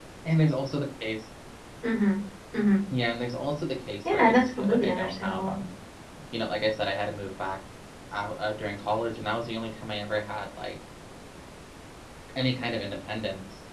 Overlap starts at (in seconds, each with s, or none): 4.0 s